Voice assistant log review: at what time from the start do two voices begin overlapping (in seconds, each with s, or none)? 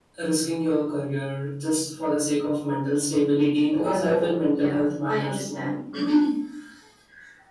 3.7 s